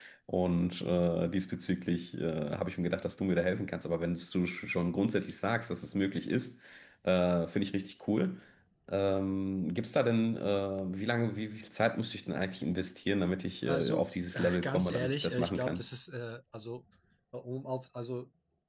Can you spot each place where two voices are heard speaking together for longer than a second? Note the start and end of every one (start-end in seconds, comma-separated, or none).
13.7-15.8